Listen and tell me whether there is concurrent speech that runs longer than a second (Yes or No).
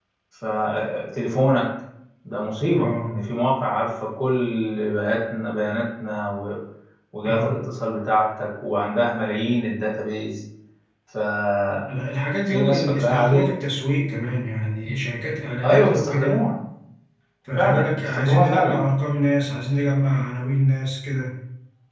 Yes